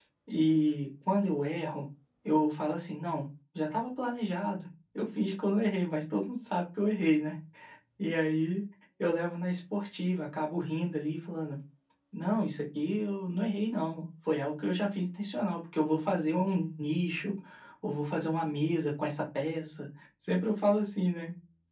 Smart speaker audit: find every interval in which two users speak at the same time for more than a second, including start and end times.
none

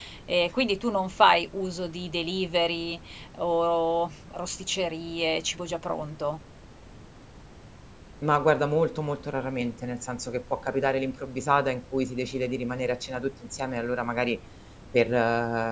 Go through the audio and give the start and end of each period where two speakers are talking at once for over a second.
none

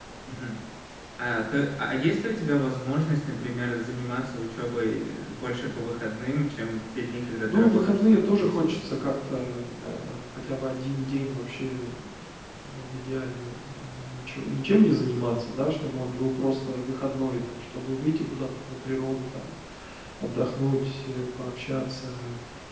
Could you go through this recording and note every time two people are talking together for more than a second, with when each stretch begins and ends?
7.5-8.8

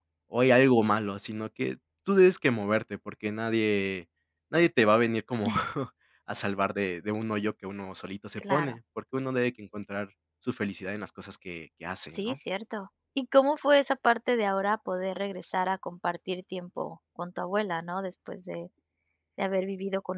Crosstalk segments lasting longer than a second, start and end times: none

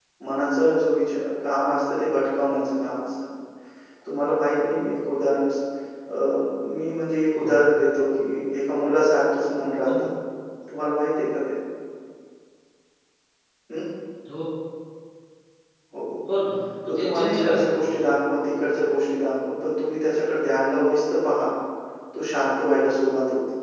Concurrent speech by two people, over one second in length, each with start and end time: 16.9-18.1

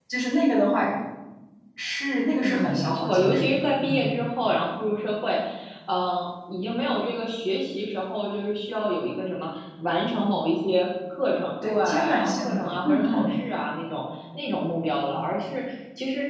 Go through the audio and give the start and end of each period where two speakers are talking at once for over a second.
2.4-4.1, 11.6-13.3

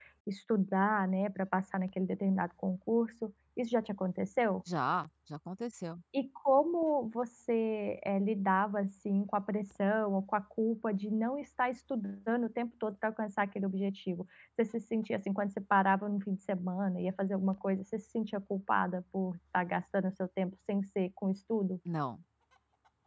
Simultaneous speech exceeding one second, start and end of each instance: none

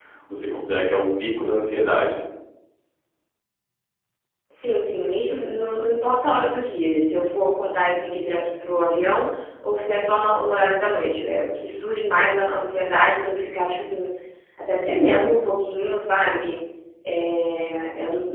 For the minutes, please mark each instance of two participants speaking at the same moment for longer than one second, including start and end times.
none

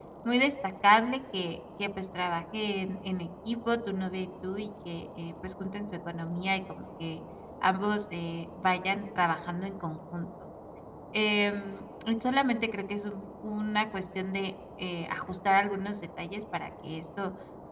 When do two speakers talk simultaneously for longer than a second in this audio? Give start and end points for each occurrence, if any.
none

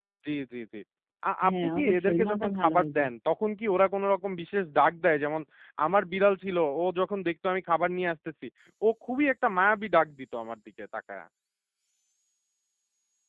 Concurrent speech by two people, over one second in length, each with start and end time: 1.4-3.1

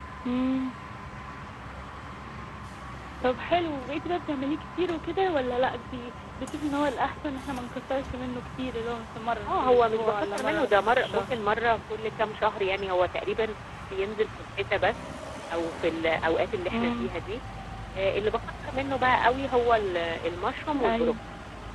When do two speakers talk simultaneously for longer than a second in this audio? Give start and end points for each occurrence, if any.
9.4-11.2

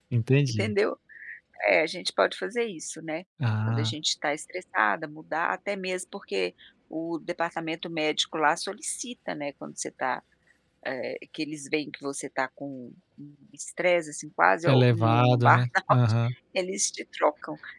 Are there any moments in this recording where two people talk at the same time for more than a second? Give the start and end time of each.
14.7-16.0

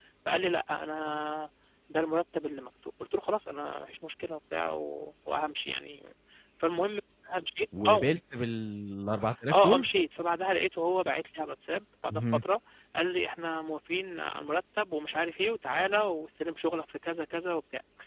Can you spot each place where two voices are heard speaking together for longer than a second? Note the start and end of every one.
none

